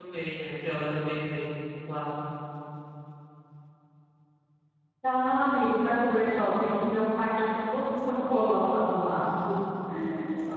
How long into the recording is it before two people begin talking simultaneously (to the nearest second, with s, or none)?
none